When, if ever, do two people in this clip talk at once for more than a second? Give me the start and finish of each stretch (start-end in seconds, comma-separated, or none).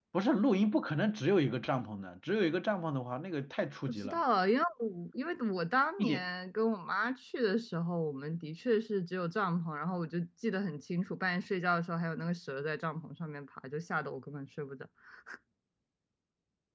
none